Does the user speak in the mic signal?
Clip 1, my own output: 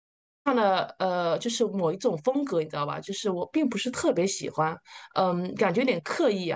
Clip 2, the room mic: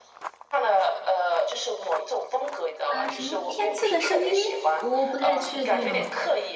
Yes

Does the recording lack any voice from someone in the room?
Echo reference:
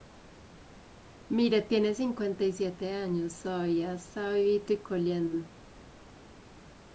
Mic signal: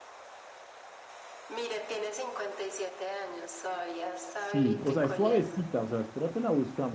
No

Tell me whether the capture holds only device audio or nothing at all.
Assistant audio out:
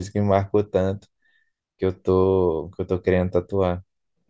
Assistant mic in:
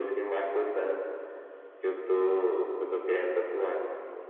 Yes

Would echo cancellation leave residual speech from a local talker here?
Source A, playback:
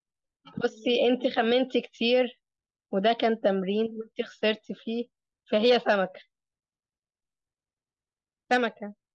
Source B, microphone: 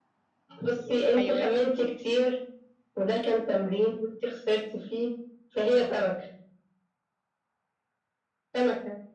Yes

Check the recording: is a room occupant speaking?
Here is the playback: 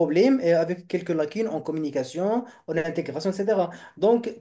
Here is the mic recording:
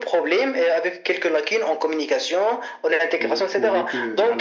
Yes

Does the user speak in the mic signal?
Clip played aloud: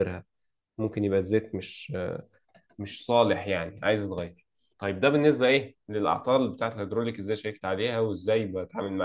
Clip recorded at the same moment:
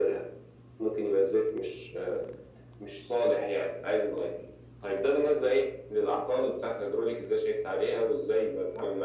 No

